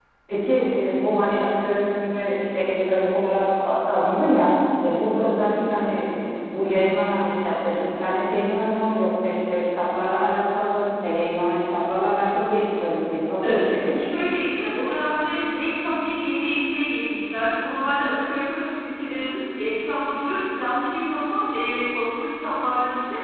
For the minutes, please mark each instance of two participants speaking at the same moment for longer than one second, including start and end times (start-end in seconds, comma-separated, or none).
none